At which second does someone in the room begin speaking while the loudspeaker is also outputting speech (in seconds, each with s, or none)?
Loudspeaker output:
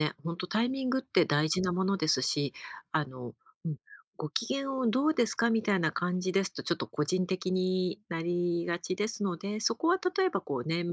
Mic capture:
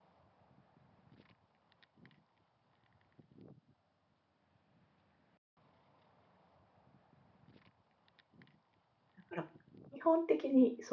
9.2 s